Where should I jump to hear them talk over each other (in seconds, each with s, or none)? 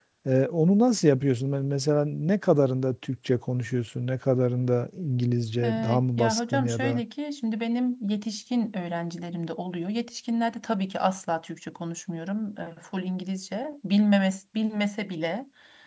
5.6 s